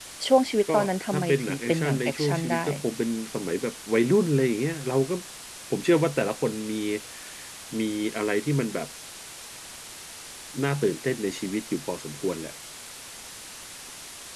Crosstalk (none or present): present